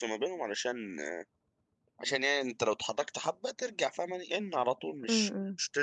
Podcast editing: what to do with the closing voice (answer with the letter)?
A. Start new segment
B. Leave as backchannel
B